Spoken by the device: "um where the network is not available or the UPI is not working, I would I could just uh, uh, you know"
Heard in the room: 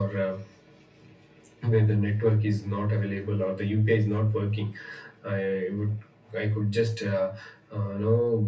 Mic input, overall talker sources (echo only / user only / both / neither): echo only